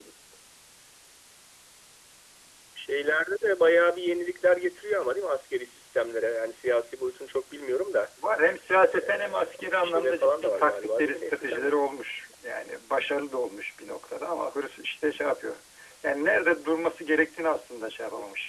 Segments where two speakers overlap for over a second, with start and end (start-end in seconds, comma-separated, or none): 8.9-11.7